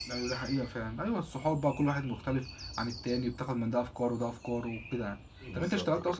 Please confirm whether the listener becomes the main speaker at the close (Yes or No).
No